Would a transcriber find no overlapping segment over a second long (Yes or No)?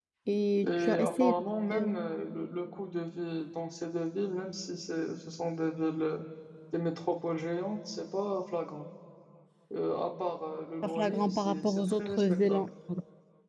No